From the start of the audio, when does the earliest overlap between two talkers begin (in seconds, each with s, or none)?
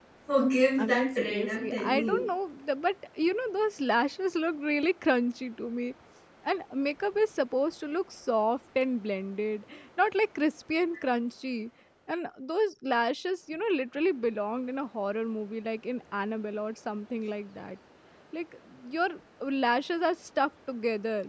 0.8 s